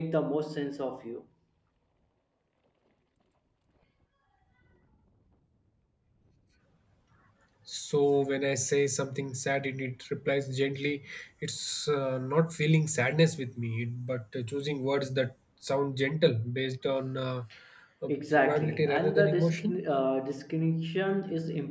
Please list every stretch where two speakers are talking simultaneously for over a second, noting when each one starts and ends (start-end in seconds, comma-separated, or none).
18.1-19.8